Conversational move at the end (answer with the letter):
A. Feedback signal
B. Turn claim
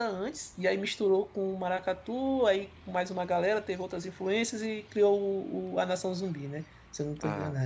A